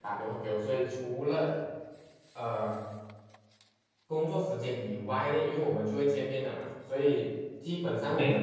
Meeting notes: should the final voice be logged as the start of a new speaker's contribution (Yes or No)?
No